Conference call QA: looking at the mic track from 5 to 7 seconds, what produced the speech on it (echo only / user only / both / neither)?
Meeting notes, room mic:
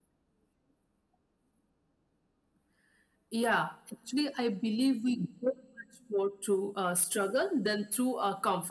echo only